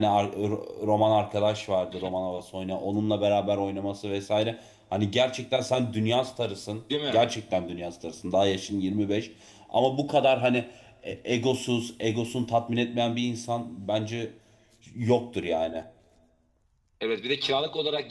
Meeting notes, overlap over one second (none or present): none